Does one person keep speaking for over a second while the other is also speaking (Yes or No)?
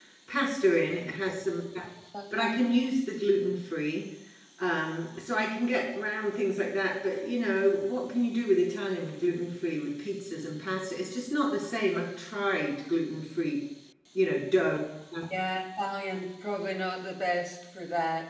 No